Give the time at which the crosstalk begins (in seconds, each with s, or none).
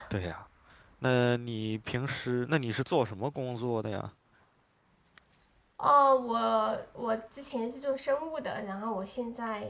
none